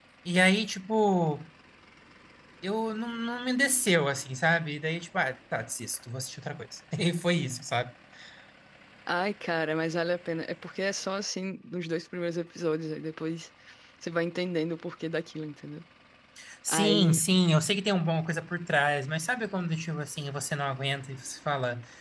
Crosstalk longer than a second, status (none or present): none